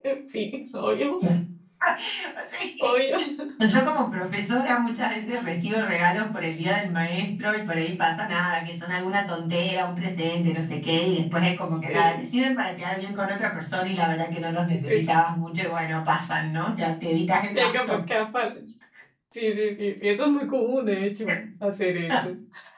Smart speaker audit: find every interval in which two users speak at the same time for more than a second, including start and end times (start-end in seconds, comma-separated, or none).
none